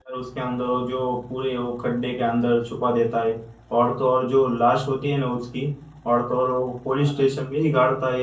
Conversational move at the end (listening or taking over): listening